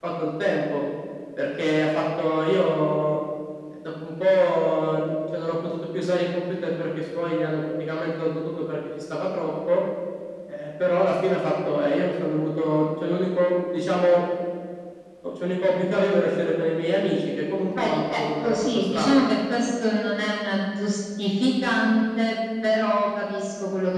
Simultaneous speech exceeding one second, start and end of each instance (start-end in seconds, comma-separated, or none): 17.8-19.2